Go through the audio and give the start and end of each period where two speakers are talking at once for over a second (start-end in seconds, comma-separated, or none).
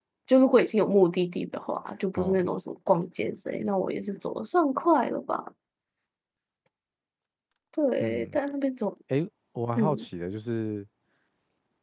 none